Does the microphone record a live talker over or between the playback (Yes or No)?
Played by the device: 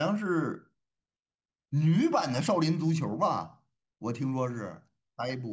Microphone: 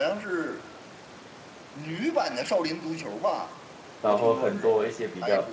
Yes